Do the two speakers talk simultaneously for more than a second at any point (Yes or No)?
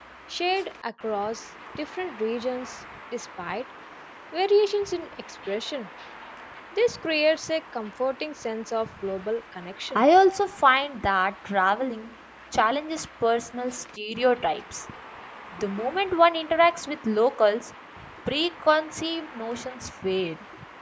No